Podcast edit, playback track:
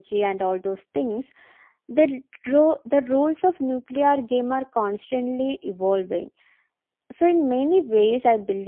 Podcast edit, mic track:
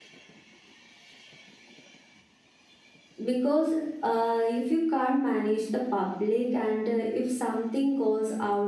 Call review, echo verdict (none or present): none